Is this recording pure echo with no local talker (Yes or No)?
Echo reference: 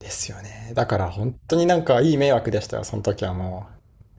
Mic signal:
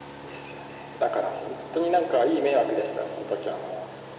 Yes